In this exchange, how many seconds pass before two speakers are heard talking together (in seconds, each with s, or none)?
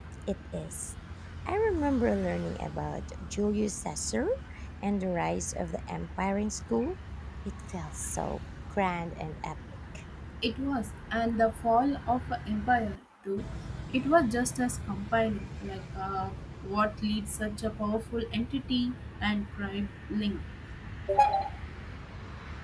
none